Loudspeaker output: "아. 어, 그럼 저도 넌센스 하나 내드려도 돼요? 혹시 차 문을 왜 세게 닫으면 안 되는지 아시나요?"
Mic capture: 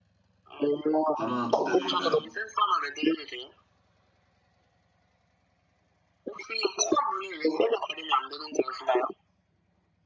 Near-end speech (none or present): present